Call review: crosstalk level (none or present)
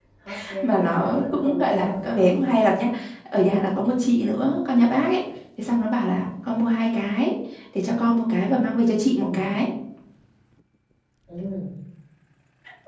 present